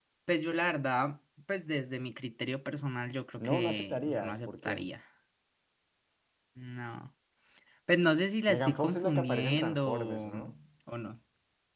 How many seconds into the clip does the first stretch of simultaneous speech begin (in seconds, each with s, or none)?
3.4 s